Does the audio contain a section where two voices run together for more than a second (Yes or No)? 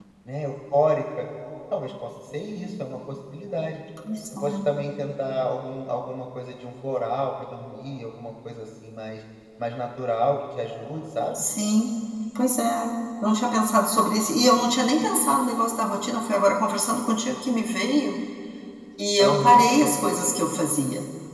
No